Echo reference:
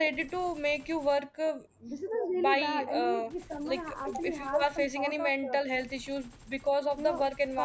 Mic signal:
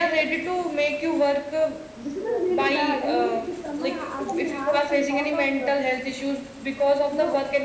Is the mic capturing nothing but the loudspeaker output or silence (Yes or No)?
Yes